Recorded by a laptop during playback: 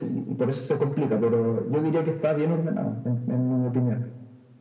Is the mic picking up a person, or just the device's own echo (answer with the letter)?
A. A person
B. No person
B